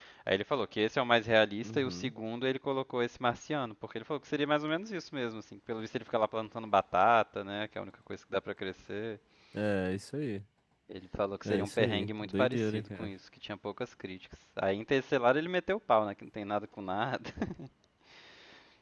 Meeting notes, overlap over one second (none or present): present